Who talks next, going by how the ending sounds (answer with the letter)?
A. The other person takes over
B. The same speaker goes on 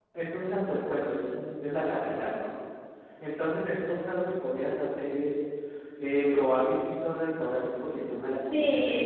A